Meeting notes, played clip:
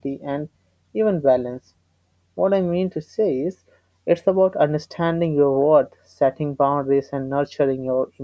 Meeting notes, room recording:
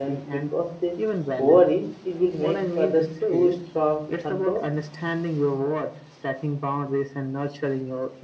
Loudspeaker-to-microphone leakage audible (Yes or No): Yes